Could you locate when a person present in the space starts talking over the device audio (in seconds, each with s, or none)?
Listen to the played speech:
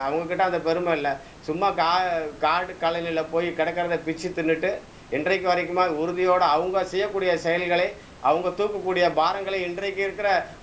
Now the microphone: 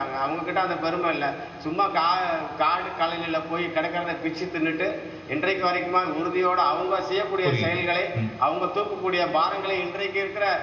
7.4 s